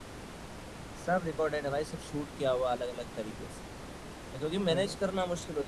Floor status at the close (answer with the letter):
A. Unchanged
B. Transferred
A